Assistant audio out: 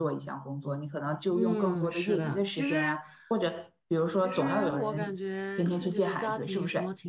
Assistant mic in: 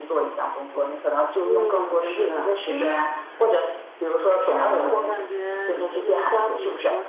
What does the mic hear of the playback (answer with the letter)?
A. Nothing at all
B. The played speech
B